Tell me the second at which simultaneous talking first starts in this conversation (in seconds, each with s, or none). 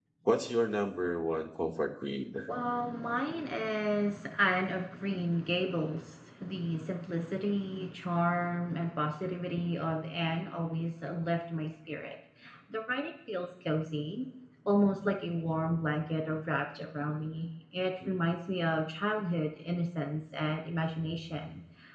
none